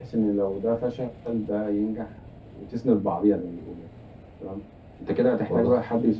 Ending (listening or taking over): listening